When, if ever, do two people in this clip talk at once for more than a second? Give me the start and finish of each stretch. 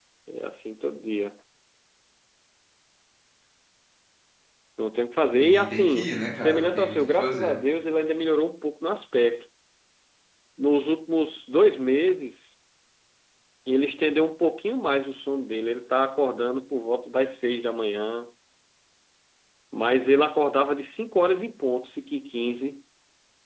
5.4-7.5

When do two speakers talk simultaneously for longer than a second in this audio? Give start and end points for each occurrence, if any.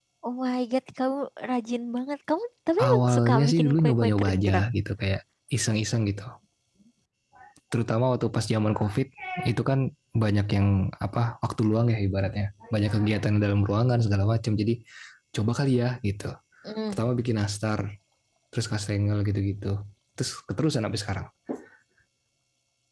2.9-4.6

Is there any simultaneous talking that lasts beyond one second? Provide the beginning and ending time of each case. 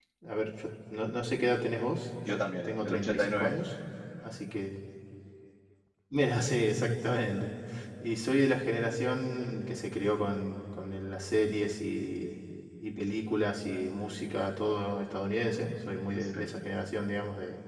2.3-3.5

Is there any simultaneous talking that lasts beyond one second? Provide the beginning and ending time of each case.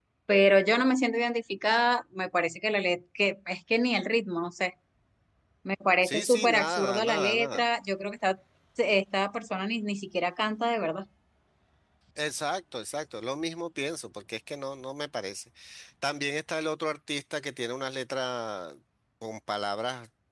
6.0-7.6

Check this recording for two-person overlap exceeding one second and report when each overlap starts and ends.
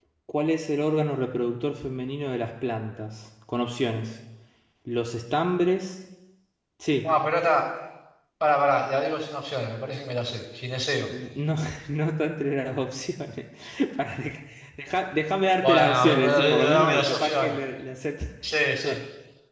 15.6-17.6

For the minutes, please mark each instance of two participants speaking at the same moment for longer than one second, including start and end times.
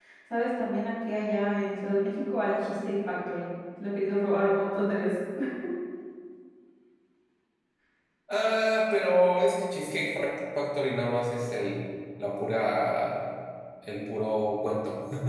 none

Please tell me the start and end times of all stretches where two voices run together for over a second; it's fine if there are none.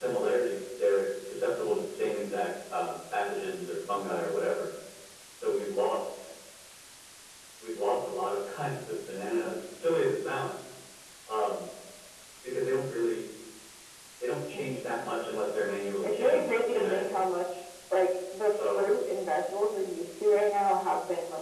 16.0-17.2

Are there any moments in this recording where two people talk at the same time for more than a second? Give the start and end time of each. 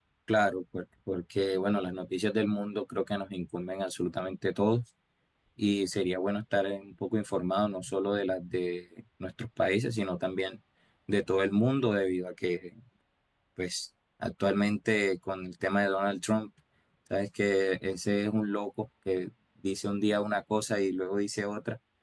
none

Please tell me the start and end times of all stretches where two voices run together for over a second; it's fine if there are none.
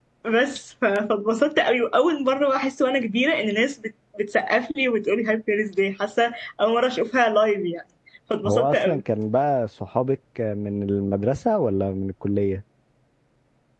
none

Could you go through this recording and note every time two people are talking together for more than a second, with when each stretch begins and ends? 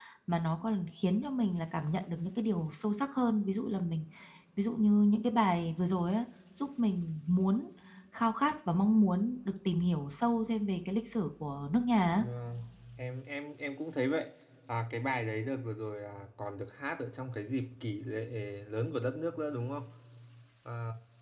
none

